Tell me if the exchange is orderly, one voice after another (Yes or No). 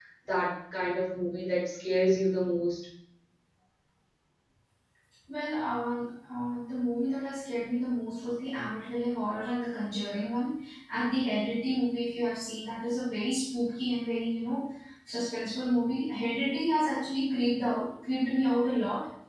Yes